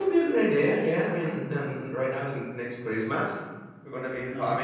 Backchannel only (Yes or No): Yes